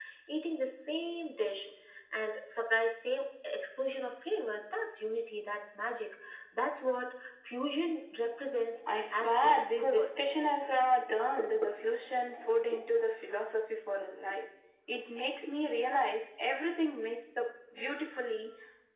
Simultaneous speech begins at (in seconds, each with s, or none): 8.9 s